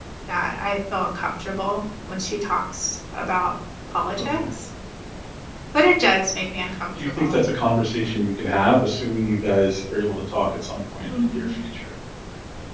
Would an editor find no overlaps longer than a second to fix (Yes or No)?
Yes